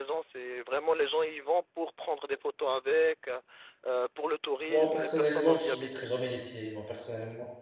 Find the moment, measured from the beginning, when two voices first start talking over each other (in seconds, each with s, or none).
4.7 s